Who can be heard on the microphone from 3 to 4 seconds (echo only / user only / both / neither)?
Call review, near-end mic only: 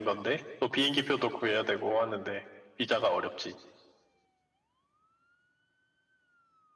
echo only